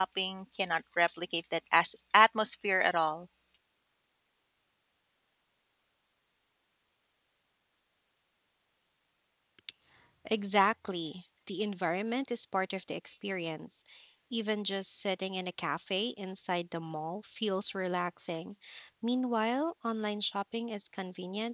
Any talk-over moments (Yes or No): No